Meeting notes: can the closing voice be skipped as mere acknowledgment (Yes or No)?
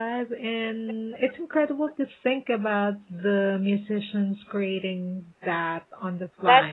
No